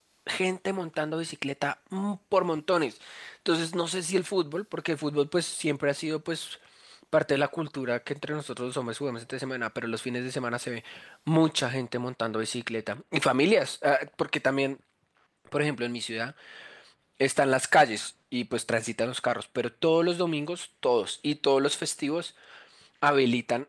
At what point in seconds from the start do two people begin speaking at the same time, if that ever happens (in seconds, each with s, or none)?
none